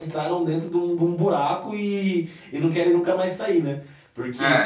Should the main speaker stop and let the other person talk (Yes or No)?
No